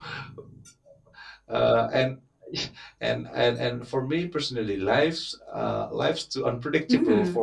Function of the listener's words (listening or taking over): taking over